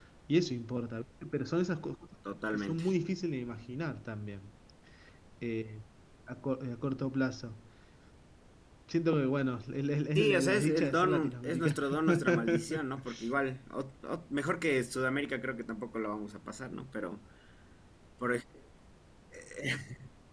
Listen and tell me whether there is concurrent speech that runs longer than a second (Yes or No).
Yes